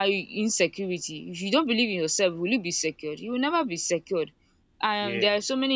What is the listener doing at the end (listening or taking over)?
listening